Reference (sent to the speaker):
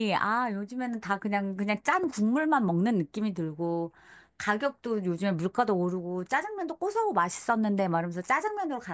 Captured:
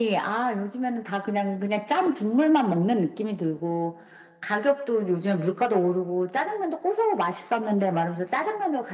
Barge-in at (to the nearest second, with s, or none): none